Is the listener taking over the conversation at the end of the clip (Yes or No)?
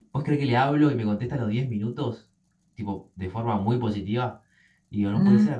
No